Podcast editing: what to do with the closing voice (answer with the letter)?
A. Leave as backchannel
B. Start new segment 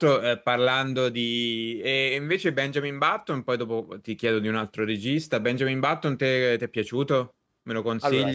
A